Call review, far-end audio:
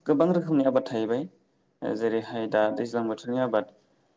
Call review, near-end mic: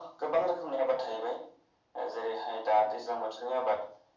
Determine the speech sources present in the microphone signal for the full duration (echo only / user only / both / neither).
echo only